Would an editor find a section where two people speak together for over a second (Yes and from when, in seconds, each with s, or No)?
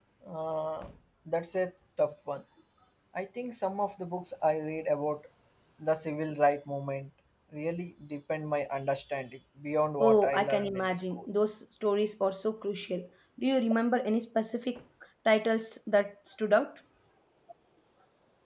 Yes, from 10.0 s